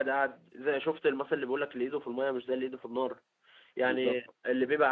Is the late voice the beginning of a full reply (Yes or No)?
No